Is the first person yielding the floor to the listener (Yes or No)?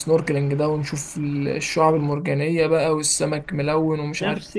Yes